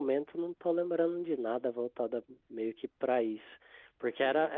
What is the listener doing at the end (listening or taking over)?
listening